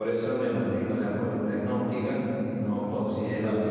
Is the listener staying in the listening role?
Yes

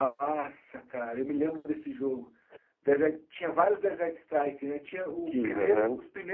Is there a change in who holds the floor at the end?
No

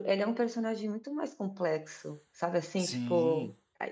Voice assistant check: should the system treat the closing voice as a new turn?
No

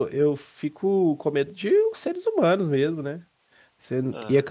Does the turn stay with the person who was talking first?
Yes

